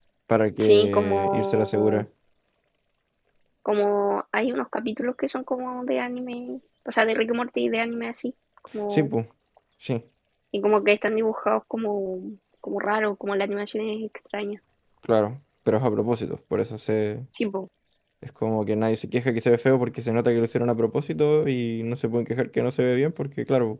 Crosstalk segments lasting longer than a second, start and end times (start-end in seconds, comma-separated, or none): 0.6-2.0